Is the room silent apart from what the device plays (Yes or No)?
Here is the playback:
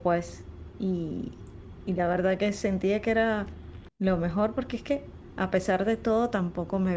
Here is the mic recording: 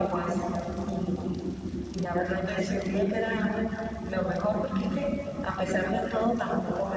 Yes